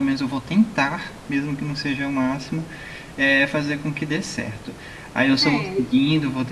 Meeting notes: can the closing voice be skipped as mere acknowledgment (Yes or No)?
Yes